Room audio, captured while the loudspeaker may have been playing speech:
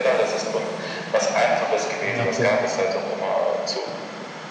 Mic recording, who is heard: both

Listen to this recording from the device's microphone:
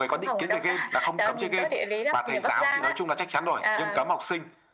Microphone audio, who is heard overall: echo only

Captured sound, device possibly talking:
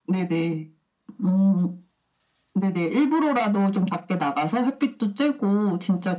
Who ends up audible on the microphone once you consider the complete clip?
echo only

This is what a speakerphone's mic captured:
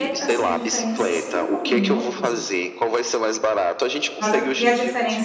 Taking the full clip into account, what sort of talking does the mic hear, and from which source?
both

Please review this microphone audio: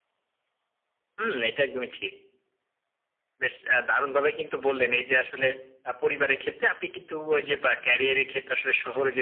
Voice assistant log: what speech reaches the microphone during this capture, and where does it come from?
echo only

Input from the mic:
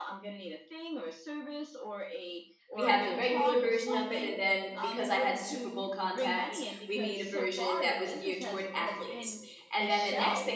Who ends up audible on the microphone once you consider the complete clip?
both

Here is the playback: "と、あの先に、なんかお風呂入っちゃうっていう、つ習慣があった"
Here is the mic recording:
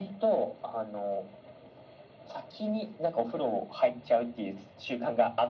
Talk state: echo only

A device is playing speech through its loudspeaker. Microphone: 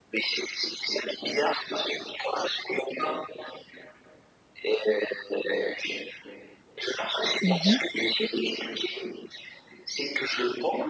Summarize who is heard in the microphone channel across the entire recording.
both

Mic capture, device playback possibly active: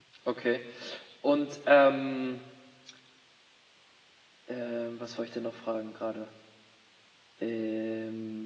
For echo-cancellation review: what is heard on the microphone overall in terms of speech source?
user only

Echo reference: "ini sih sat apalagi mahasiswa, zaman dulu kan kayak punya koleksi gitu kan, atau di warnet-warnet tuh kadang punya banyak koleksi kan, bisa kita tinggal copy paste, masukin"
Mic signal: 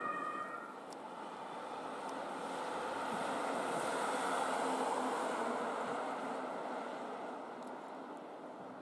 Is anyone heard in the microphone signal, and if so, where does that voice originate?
neither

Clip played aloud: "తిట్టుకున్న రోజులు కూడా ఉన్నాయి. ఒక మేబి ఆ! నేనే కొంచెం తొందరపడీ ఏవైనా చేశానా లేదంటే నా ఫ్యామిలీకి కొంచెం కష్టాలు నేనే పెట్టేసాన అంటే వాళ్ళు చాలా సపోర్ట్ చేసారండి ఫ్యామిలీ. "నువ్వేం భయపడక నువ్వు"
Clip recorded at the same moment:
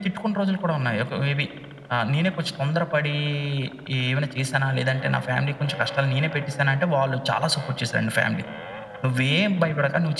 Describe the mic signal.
echo only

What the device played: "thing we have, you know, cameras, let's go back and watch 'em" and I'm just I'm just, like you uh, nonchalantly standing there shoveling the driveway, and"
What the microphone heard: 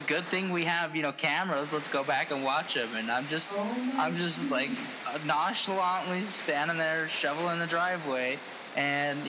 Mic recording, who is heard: both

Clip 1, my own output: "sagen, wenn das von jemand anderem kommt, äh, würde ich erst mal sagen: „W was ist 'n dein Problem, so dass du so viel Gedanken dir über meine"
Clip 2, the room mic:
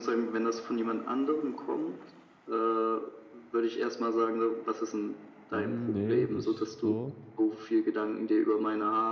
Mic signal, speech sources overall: both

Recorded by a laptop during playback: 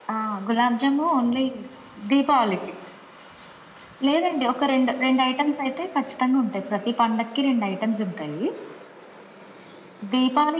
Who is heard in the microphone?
echo only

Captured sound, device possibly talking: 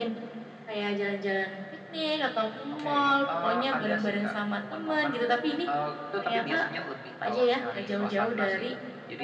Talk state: echo only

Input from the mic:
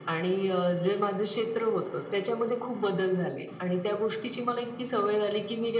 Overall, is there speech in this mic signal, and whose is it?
echo only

